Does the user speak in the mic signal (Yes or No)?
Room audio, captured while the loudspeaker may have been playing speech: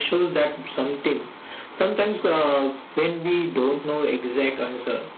No